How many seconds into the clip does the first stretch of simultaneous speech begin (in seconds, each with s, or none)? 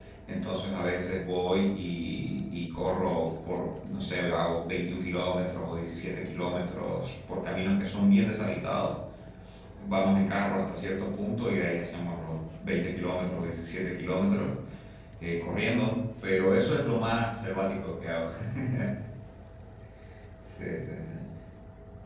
none